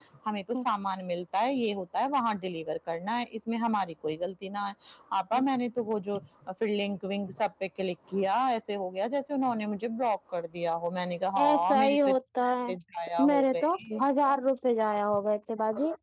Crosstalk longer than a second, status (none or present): present